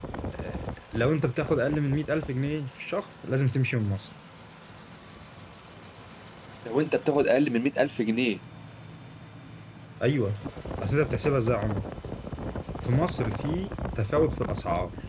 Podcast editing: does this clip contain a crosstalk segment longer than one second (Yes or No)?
No